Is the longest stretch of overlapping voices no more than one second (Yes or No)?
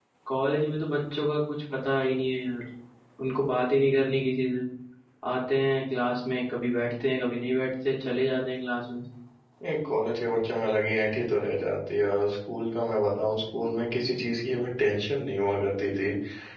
Yes